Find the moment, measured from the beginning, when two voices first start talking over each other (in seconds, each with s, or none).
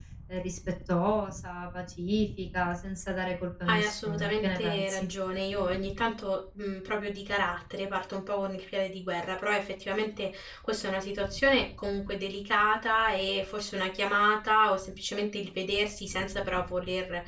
3.6 s